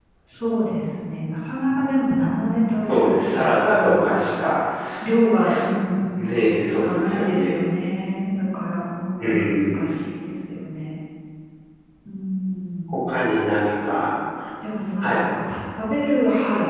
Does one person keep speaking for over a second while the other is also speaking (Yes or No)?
Yes